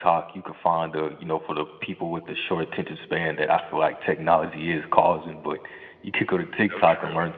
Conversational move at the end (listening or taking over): listening